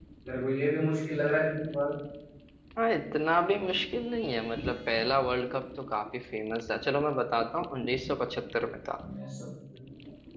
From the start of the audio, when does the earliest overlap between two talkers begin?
none

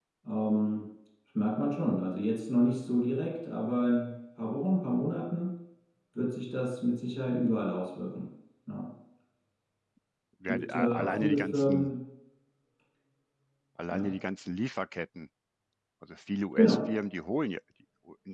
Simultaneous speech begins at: 10.5 s

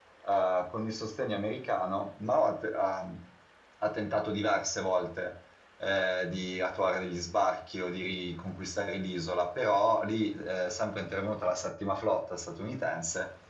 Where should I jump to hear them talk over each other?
none

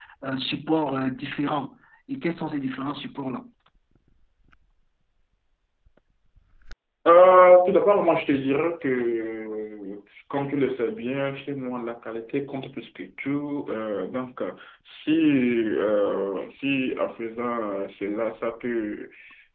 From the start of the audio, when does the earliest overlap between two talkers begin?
none

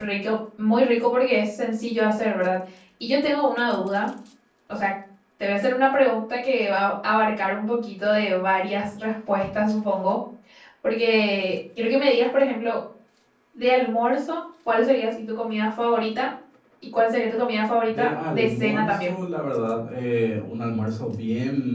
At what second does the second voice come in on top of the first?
17.9 s

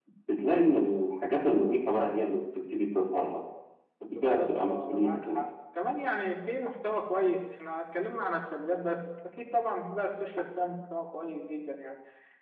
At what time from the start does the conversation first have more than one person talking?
4.2 s

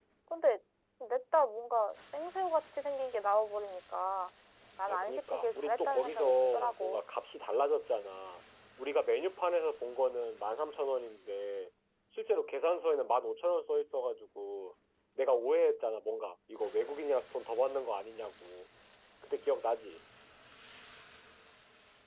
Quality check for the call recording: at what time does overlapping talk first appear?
4.9 s

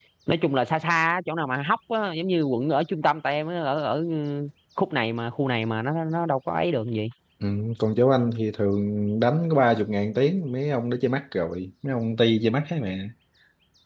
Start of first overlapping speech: none

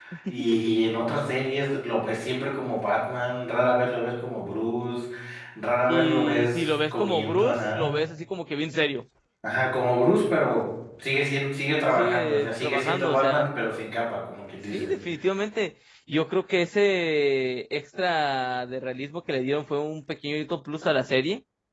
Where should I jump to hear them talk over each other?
5.9 s

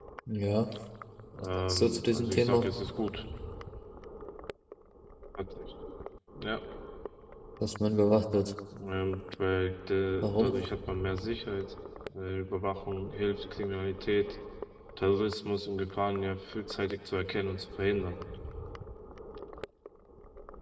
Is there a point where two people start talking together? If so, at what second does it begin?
1.4 s

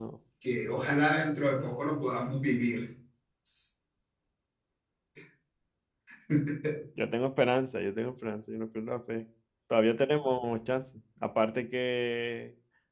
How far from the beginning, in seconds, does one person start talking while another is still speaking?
none

